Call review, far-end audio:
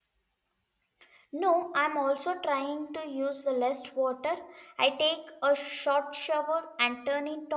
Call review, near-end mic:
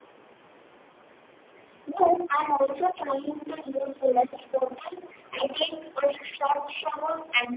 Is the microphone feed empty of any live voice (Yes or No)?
Yes